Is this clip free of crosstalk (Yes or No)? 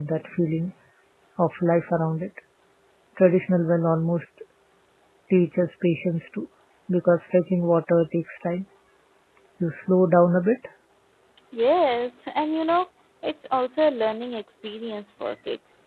Yes